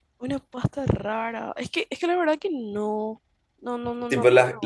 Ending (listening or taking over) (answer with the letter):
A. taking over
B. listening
A